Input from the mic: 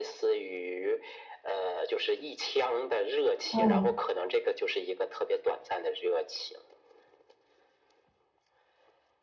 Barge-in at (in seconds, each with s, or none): 3.5 s